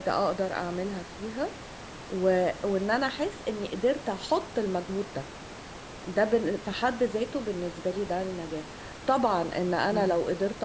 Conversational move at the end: listening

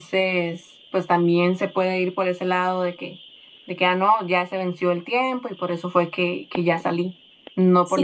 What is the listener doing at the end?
taking over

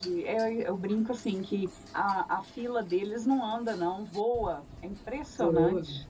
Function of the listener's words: taking over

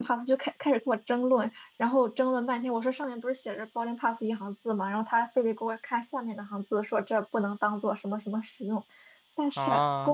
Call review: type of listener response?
listening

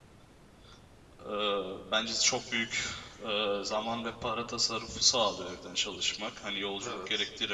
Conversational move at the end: listening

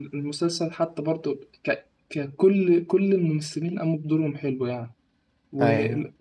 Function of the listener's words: listening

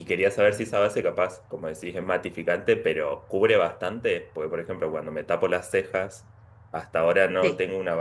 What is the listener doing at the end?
listening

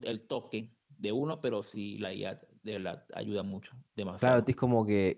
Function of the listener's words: taking over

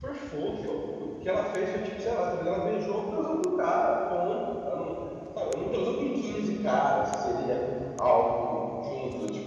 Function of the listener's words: listening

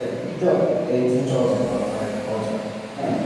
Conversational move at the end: taking over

